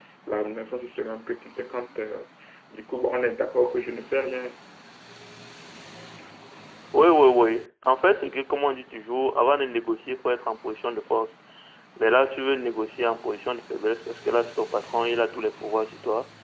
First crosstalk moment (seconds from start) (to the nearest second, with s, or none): none